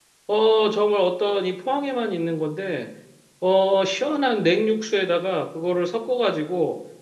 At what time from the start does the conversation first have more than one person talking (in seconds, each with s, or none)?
none